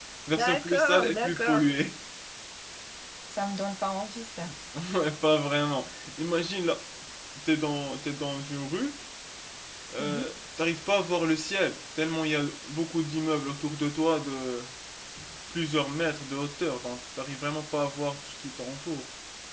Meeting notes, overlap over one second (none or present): present